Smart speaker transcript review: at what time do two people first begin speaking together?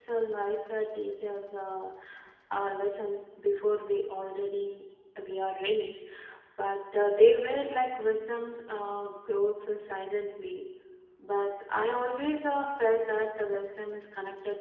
none

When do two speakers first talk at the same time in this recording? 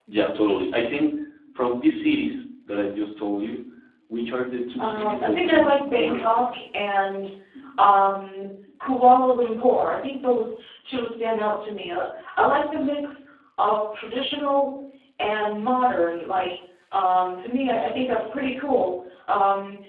5 s

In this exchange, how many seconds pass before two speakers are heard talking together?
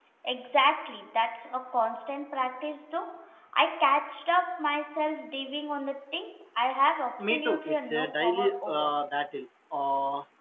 7 s

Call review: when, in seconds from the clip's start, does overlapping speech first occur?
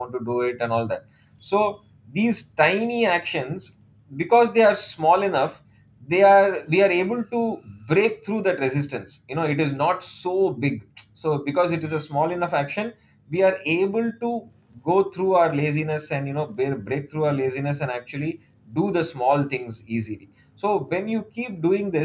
none

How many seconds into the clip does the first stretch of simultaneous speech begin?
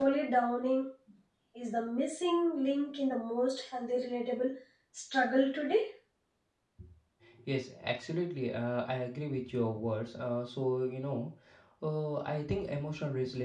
none

